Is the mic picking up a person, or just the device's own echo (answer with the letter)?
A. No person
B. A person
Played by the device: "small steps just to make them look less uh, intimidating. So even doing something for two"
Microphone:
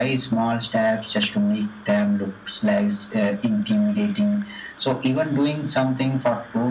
A